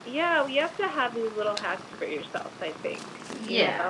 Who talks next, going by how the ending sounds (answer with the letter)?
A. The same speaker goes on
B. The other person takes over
B